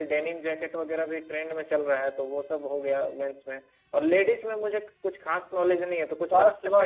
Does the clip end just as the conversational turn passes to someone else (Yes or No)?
Yes